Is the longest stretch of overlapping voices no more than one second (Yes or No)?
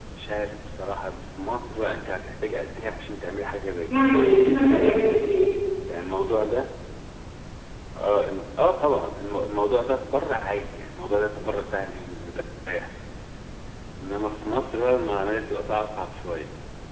Yes